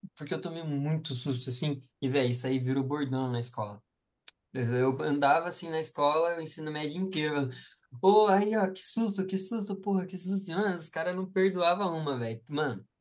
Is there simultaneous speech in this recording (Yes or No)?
No